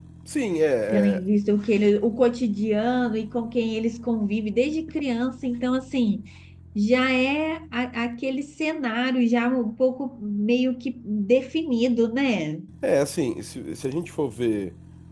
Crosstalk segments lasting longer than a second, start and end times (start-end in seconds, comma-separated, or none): none